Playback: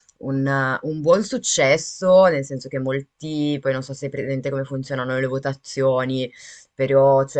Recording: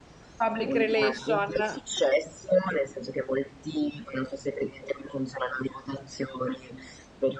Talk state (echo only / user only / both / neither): both